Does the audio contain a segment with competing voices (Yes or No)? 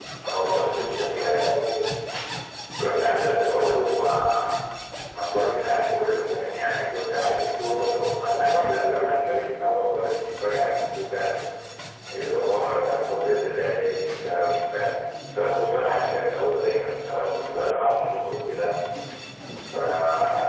Yes